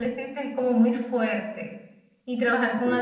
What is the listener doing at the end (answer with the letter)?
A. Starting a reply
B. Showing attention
B